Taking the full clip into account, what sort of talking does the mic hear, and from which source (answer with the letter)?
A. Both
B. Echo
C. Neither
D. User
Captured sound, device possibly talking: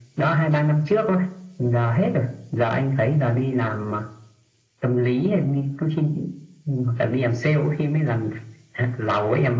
B